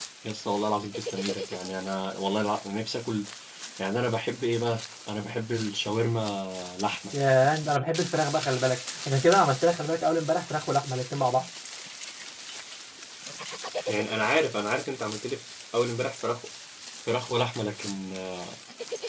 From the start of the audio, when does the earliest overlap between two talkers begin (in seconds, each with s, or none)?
none